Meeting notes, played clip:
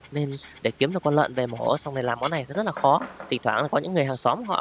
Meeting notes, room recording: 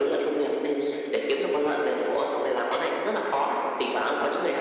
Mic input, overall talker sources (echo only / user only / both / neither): echo only